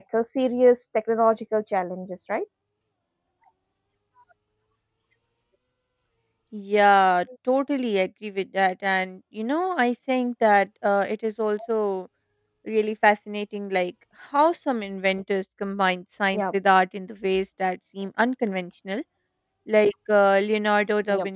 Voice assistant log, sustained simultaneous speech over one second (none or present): none